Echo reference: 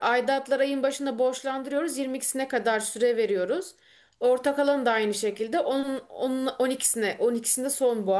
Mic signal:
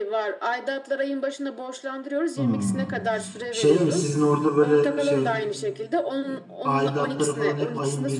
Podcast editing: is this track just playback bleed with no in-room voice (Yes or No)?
No